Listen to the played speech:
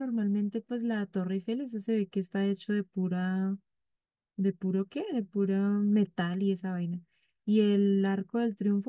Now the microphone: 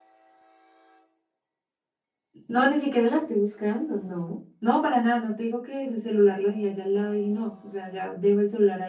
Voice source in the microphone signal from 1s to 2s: neither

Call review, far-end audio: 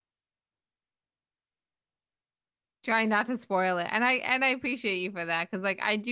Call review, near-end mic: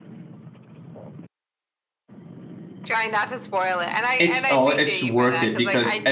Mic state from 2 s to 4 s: echo only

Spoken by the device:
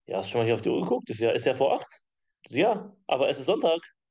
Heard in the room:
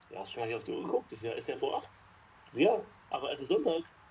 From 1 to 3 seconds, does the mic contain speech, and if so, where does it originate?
echo only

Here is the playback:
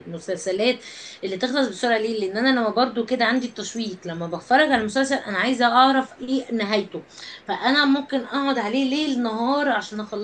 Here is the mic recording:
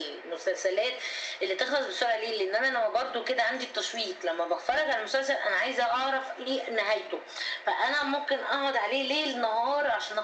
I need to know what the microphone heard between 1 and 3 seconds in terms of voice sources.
echo only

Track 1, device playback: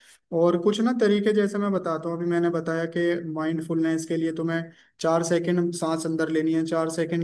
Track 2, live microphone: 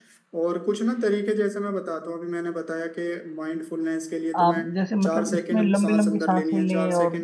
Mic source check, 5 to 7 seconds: both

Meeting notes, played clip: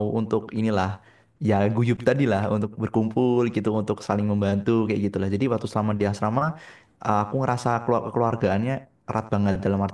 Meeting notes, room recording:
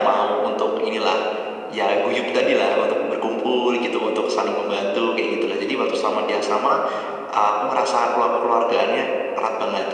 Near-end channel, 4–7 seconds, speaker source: echo only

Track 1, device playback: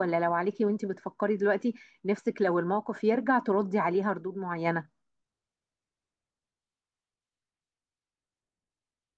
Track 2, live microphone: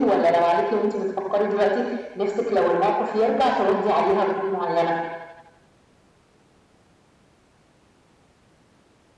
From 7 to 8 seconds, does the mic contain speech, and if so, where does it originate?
neither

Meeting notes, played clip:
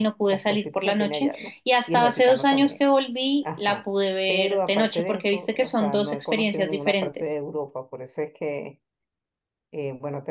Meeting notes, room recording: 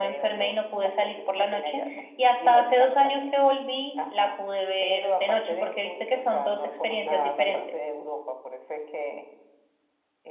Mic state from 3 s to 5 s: echo only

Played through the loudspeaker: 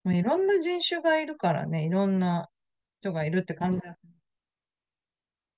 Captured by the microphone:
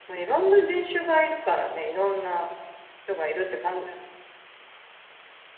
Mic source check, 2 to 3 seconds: echo only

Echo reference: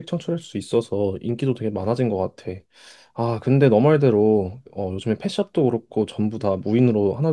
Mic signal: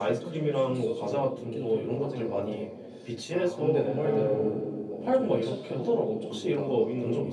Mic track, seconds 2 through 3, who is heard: both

